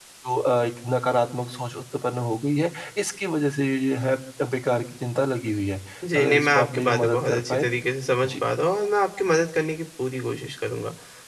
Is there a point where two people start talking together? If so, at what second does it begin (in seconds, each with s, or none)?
6.2 s